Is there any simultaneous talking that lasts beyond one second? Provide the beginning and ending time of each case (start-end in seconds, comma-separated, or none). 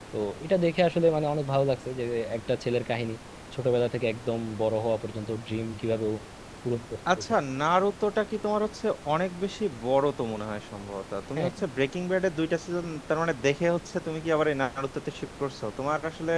none